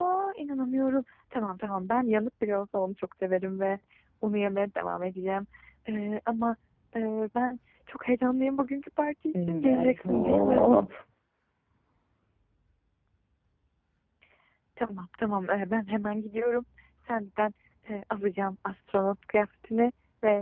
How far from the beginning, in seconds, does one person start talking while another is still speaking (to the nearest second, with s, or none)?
9 s